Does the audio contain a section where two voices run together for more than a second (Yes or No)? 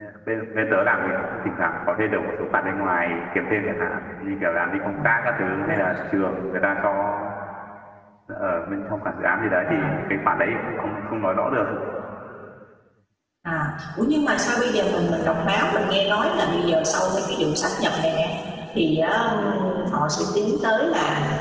No